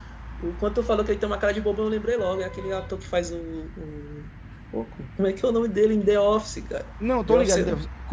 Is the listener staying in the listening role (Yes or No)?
No